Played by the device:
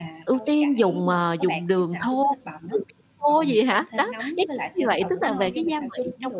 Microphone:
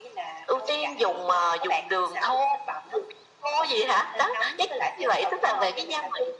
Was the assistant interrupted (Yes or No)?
No